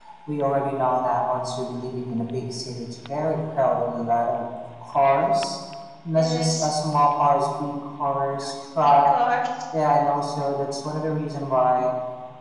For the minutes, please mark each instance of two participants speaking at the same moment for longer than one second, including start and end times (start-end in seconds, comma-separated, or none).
none